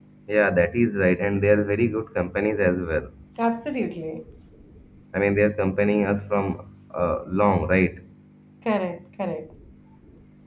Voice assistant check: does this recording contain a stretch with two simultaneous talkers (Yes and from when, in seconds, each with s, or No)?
No